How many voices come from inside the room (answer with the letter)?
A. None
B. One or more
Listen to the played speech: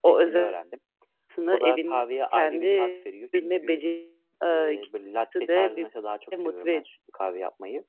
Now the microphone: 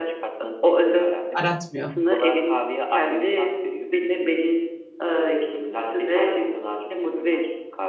B